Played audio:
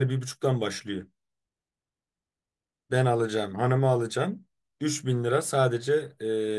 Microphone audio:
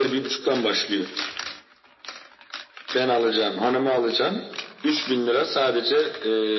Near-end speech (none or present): none